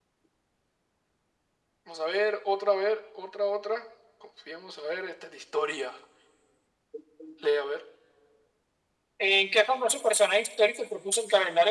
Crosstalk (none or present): none